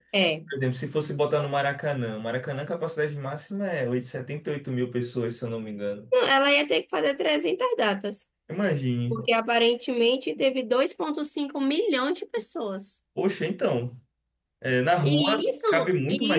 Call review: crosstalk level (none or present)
present